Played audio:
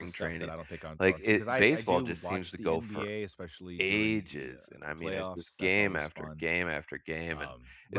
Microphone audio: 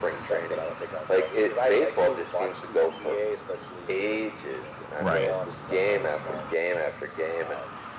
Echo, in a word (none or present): present